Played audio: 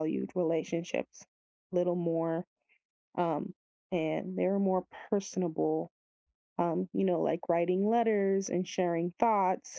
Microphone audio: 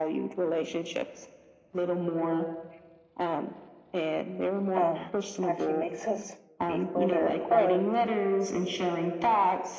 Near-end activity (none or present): present